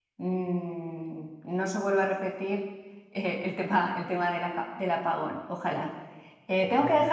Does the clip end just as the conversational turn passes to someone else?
No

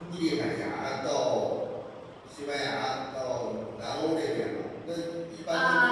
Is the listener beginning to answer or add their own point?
Yes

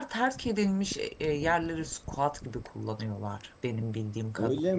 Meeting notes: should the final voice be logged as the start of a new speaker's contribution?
Yes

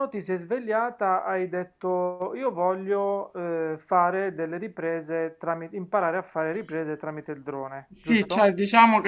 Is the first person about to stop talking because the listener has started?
Yes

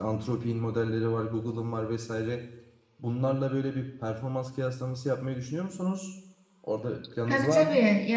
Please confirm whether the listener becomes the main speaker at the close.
Yes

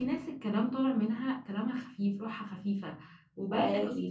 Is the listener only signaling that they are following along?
Yes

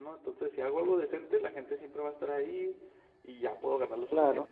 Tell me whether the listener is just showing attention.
Yes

